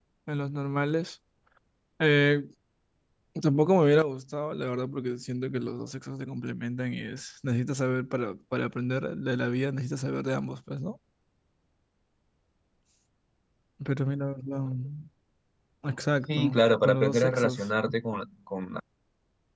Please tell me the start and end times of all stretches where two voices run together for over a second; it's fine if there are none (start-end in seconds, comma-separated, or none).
16.3-17.7